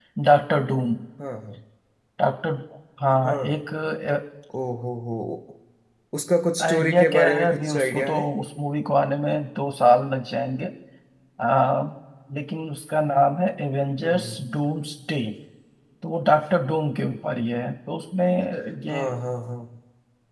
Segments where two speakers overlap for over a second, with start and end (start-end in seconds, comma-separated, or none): 6.6-8.3